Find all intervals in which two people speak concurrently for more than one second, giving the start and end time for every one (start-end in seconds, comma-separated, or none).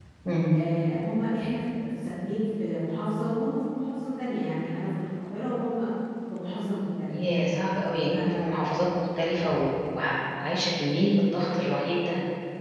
none